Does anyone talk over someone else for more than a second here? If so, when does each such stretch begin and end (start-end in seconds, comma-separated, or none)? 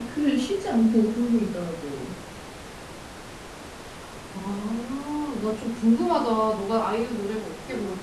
none